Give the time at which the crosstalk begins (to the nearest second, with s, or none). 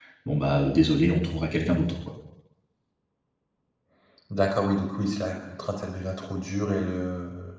none